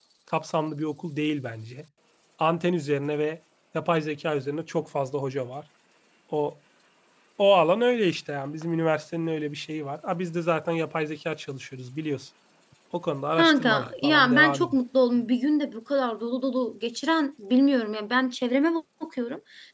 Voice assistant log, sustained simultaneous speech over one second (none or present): present